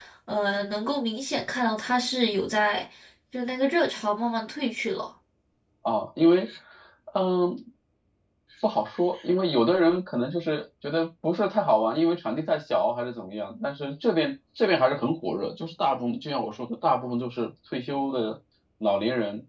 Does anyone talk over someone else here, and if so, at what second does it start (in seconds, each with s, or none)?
none